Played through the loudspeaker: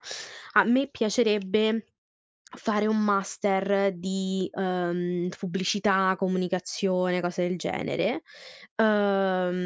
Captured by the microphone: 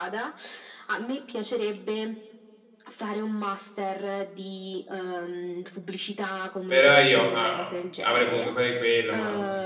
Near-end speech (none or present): present